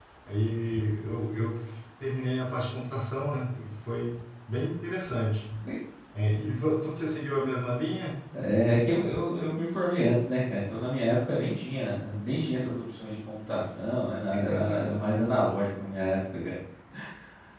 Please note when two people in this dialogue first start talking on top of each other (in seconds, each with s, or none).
none